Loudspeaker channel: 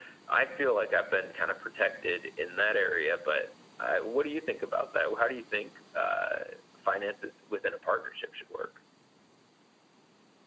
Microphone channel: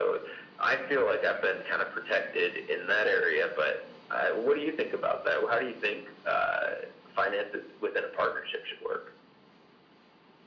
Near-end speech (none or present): none